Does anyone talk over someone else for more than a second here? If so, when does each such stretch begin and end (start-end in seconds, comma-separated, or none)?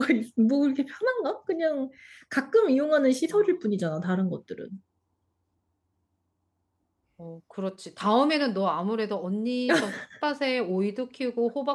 none